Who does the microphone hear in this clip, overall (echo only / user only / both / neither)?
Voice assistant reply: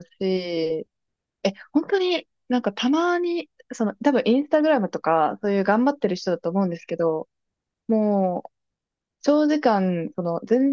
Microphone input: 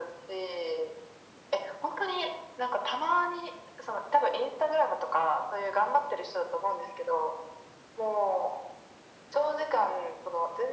echo only